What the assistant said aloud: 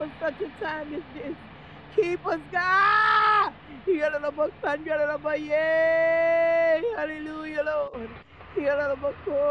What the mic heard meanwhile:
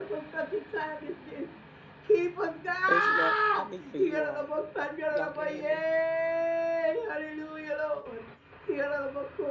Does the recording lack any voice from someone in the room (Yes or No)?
No